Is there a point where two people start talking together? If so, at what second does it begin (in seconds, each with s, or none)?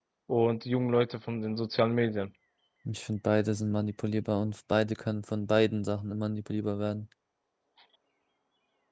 none